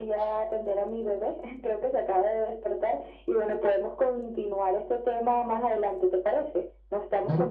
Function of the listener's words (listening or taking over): taking over